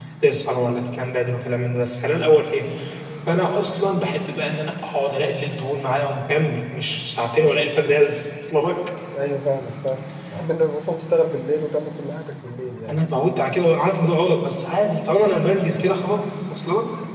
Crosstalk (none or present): none